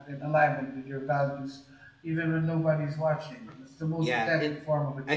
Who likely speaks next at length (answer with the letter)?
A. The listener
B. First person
A